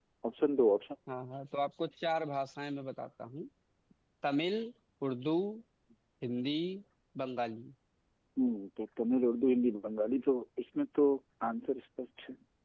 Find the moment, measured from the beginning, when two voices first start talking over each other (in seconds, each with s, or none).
none